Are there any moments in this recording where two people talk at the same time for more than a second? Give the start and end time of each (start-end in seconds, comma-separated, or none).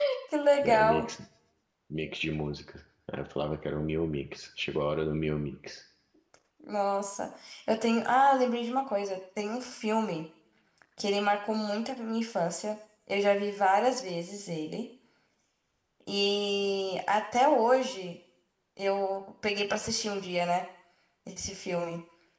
none